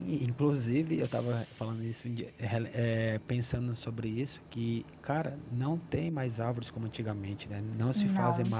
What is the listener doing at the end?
listening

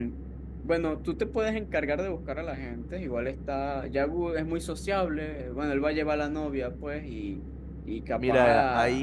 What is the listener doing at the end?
taking over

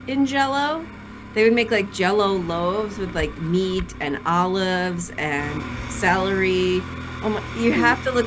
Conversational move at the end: listening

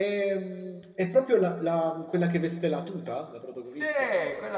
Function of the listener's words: taking over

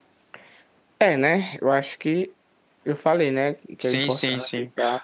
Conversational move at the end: taking over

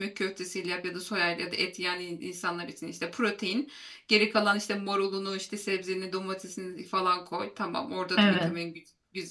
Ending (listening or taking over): listening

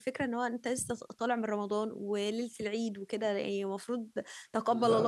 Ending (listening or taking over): listening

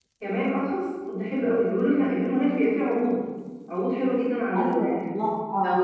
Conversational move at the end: taking over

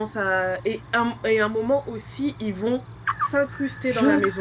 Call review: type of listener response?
taking over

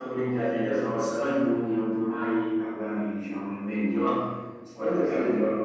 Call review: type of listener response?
taking over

